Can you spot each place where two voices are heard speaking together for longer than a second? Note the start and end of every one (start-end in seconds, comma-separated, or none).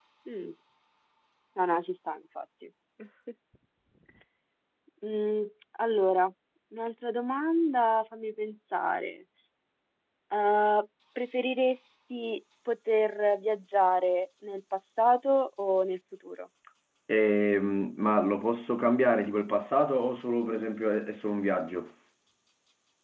none